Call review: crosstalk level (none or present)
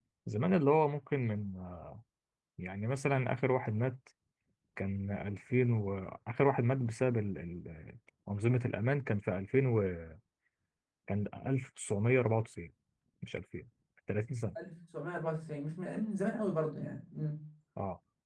none